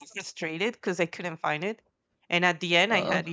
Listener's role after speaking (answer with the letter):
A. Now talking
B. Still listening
B